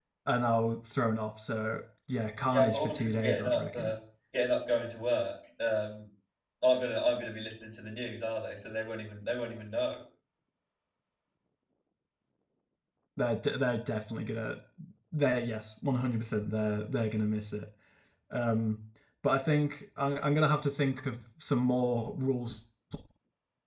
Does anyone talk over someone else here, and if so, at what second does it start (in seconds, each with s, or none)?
2.5 s